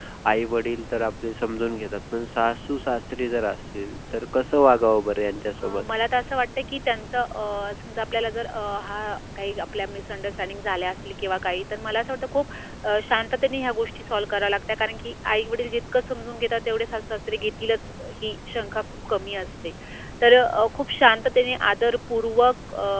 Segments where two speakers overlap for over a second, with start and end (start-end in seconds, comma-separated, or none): none